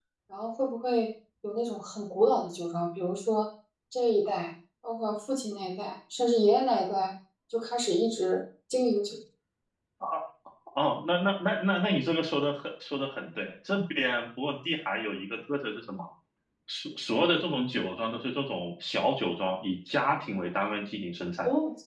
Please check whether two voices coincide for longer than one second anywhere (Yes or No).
No